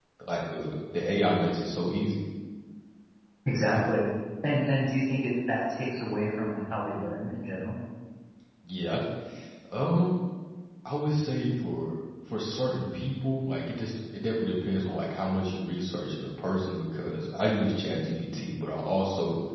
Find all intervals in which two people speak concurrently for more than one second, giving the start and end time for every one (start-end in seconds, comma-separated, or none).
none